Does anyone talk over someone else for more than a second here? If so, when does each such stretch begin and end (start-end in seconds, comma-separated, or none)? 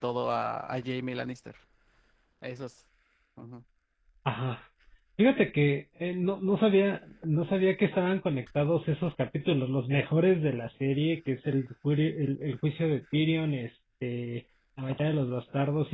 none